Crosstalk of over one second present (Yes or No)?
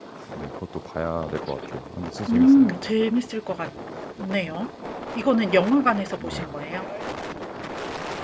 No